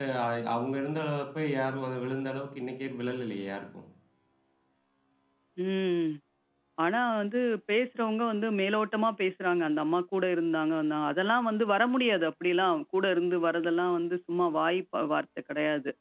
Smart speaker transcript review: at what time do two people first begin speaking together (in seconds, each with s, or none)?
none